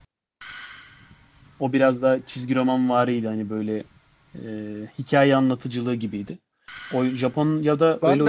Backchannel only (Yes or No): No